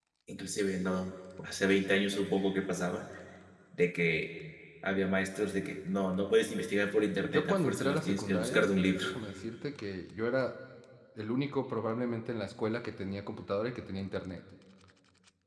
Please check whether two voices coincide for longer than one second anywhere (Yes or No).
Yes